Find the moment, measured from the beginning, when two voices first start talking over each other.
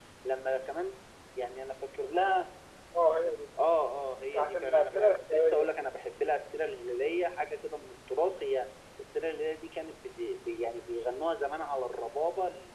4.3 s

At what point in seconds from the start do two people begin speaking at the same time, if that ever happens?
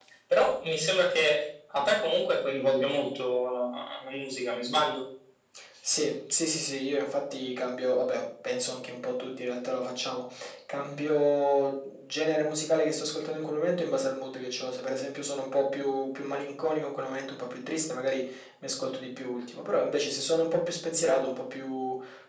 none

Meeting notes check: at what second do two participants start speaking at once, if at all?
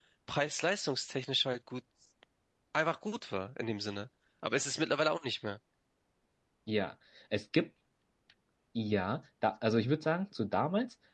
none

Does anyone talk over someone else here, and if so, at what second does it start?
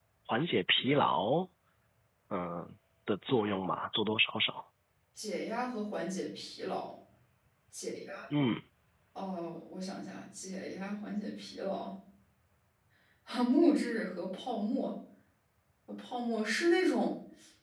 none

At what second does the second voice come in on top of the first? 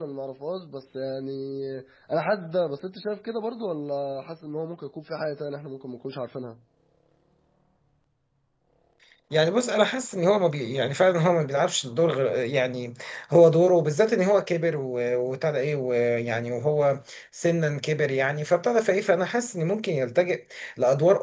none

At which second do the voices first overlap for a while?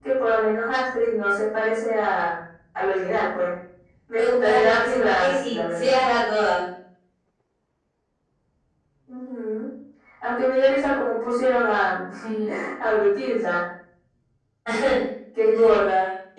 4.2 s

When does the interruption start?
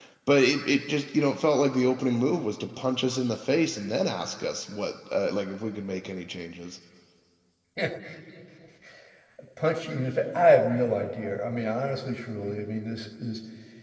none

